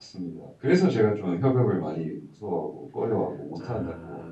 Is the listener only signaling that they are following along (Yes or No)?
No